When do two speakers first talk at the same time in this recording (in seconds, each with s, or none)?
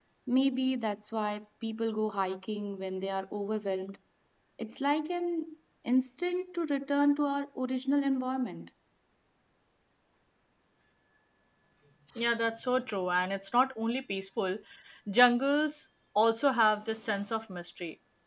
none